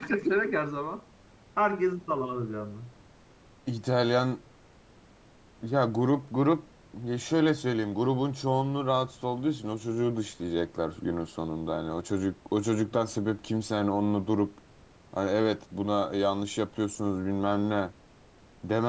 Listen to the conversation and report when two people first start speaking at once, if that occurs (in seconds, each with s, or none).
none